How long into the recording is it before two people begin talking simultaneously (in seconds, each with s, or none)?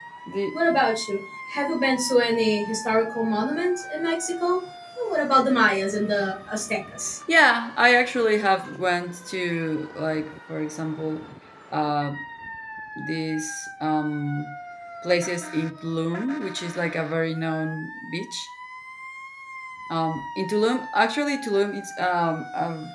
none